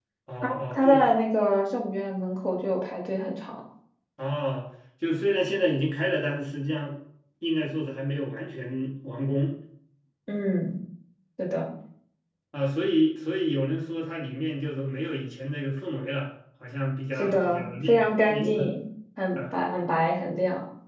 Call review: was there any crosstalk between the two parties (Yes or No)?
Yes